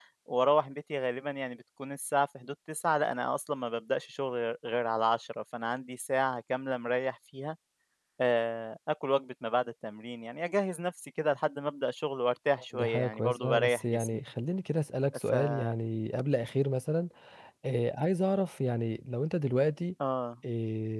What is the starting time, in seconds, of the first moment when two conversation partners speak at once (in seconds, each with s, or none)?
12.7 s